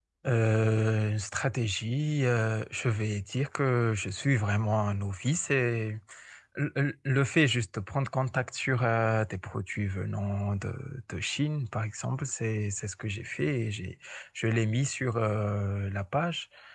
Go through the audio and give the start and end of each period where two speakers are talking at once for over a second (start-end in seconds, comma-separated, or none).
none